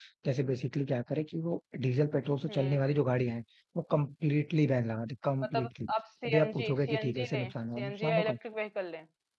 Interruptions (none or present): present